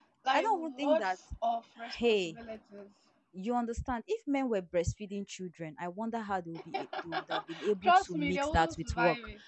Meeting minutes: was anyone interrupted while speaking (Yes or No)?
Yes